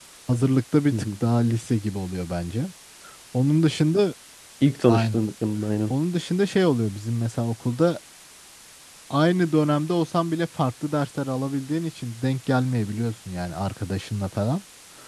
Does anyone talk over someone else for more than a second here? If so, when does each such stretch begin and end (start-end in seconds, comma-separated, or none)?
none